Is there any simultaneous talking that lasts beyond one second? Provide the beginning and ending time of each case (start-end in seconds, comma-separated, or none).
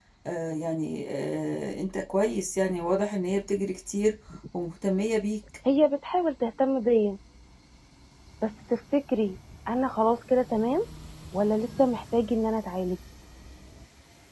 none